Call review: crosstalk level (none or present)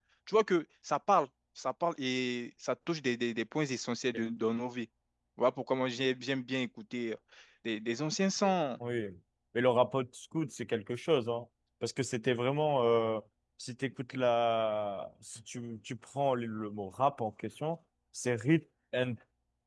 none